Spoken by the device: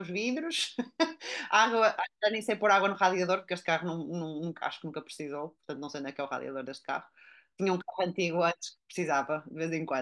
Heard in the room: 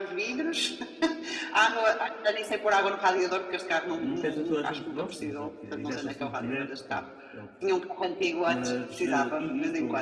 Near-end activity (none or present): present